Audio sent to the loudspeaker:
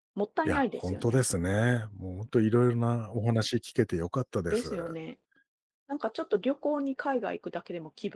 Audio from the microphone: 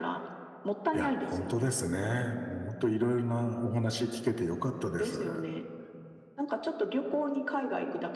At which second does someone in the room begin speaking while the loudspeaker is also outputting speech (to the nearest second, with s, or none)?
none